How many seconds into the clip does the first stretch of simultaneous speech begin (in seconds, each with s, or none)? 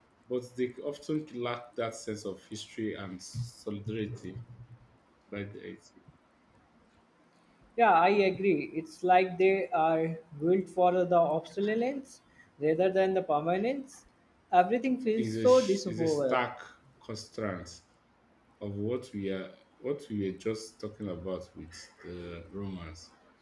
15.2 s